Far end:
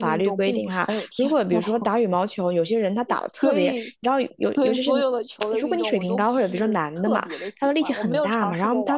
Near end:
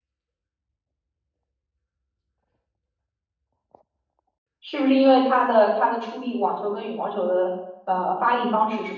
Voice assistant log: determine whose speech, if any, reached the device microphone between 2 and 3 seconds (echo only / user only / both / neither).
neither